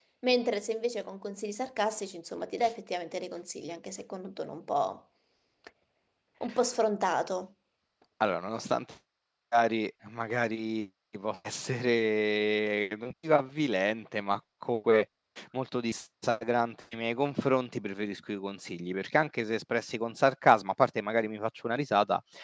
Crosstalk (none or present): none